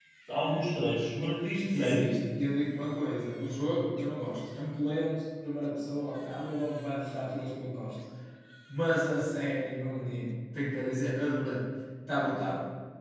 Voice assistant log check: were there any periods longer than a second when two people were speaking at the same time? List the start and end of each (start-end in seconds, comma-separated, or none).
none